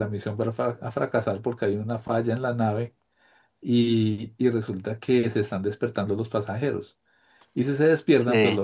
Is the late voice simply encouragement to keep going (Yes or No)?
Yes